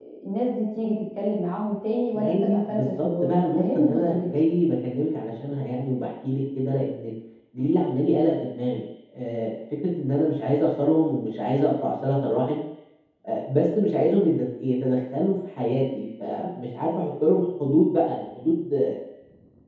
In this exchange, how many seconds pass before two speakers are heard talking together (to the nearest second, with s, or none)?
2 s